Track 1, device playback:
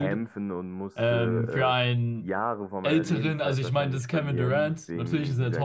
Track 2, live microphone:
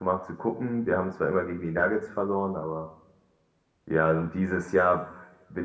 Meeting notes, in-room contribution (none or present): present